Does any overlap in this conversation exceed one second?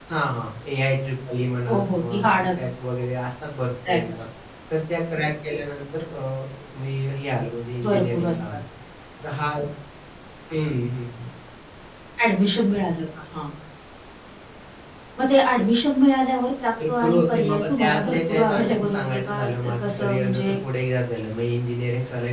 Yes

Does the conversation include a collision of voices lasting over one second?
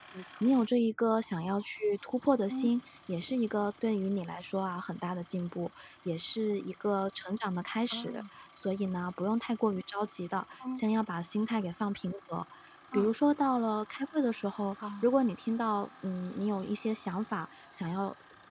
No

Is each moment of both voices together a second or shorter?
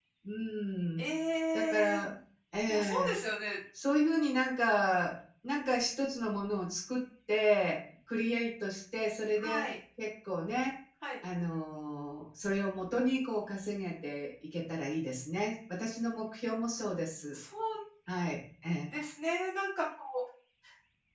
Yes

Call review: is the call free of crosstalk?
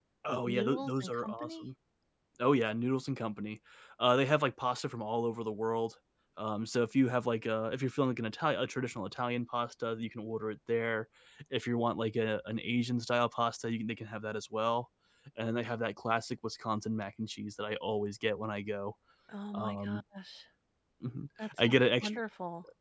No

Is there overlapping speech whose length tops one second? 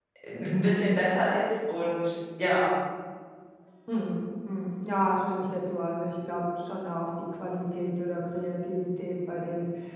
No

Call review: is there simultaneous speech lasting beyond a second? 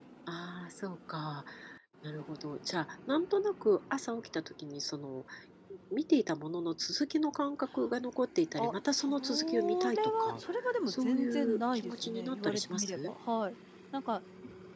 Yes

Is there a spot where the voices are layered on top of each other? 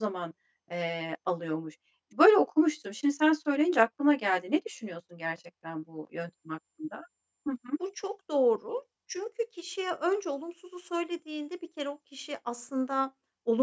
No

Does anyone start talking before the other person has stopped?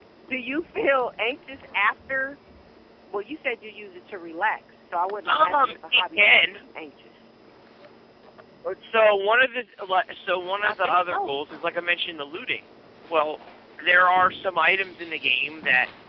Yes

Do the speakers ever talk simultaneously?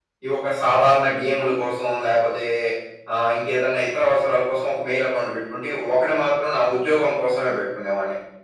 No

